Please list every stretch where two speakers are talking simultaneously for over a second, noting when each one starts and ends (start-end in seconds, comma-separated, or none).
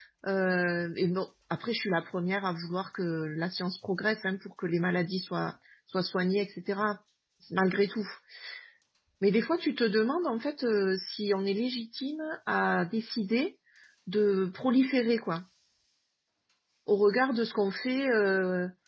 none